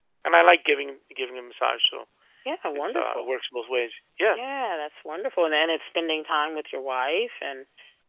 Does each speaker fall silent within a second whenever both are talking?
Yes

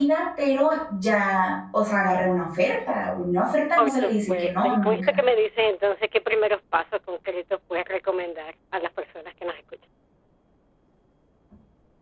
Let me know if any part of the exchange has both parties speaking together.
Yes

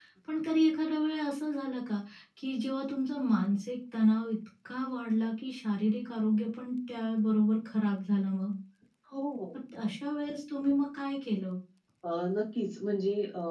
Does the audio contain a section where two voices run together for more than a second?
No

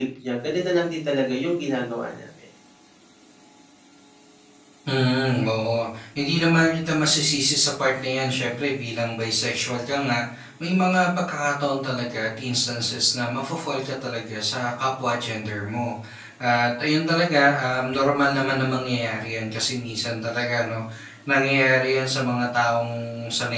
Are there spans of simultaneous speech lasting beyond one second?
No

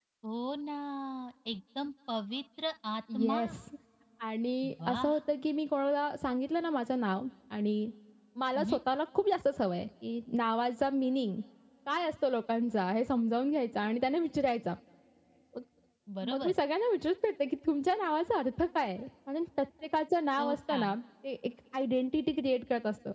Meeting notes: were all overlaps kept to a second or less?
Yes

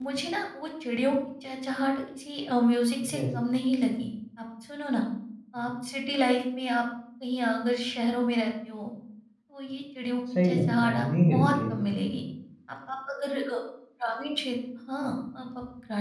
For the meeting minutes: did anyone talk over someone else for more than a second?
Yes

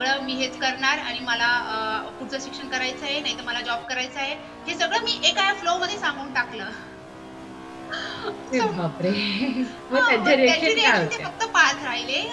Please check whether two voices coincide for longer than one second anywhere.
Yes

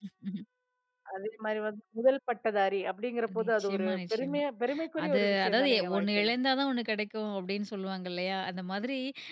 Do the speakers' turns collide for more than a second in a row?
Yes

